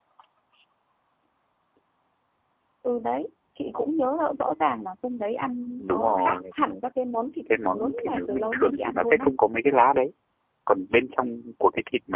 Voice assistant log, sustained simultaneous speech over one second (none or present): present